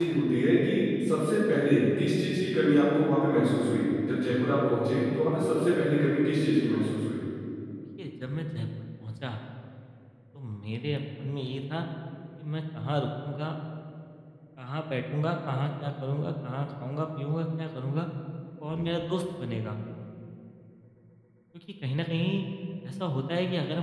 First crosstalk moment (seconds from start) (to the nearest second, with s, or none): none